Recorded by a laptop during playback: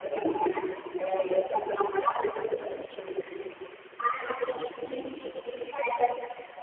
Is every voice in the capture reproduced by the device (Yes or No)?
Yes